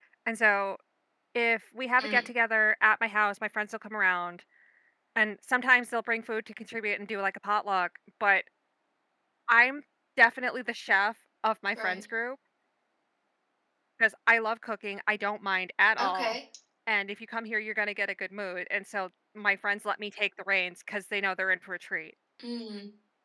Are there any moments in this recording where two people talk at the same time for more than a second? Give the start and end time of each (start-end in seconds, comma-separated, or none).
none